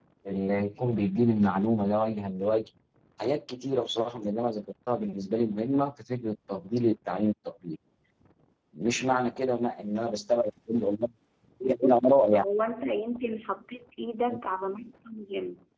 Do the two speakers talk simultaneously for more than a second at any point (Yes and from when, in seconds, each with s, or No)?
No